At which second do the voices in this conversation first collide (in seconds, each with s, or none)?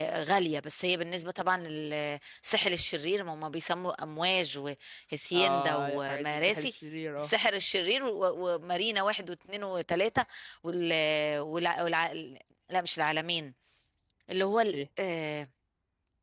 5.3 s